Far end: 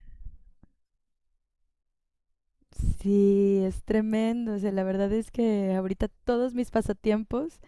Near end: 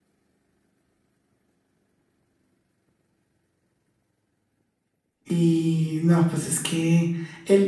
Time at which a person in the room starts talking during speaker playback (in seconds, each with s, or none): 5.2 s